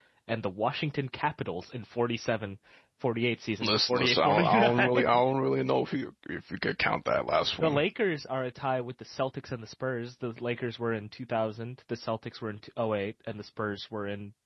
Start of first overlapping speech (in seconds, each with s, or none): 3.6 s